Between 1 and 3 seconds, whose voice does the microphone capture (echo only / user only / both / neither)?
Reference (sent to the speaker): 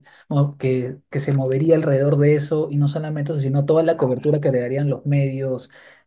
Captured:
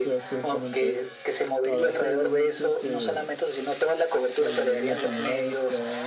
both